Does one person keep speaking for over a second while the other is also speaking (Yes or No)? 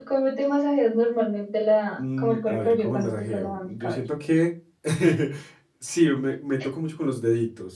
Yes